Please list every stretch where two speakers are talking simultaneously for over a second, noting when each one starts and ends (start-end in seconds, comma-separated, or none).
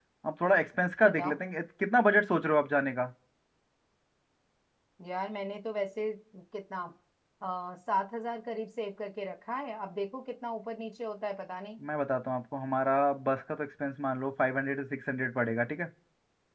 none